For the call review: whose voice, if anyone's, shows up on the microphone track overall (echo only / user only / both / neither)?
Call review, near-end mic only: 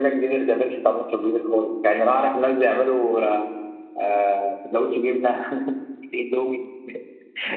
echo only